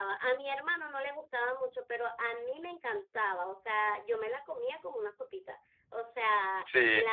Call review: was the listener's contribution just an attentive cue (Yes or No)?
Yes